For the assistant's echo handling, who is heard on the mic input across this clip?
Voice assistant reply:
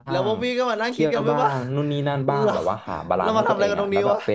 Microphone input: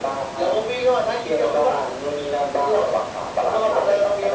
echo only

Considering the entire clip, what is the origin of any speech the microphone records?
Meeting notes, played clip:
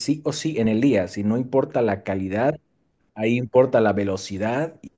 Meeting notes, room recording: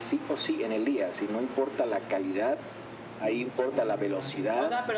both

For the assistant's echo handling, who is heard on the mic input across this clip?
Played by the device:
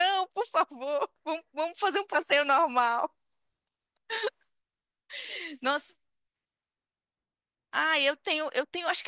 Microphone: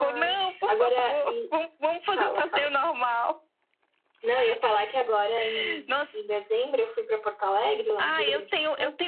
both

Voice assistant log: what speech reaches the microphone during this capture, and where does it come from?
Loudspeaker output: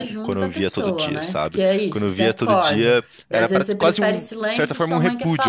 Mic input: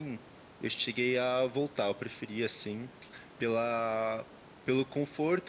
user only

